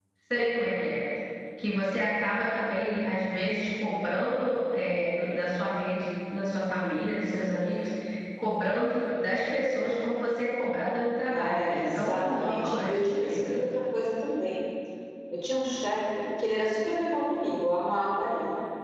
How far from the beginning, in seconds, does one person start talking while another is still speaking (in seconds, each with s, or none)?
11.3 s